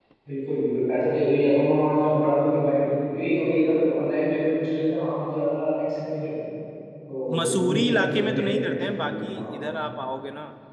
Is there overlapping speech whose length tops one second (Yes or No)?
Yes